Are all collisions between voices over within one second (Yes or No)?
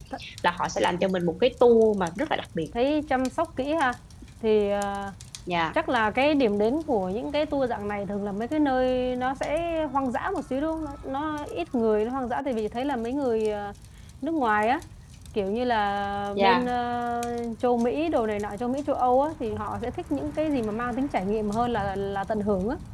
Yes